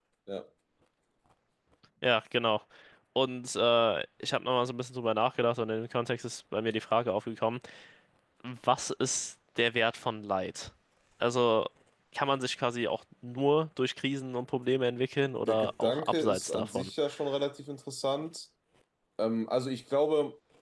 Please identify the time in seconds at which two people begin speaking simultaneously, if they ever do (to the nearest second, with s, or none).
15 s